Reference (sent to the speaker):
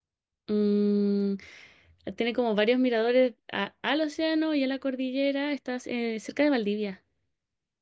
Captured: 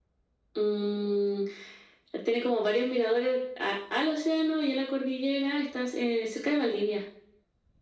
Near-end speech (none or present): none